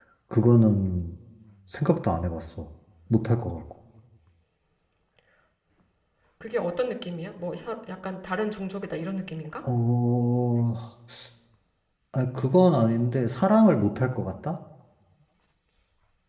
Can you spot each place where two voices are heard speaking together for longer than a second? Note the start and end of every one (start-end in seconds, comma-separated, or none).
none